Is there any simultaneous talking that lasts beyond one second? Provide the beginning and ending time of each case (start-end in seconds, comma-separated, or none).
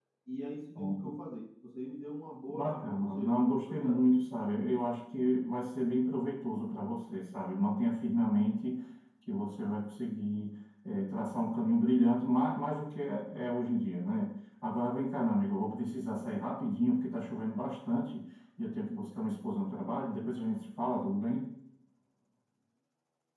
2.5-4.0